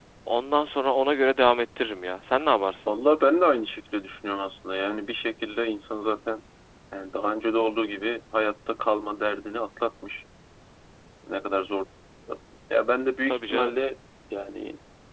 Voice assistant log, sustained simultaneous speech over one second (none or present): none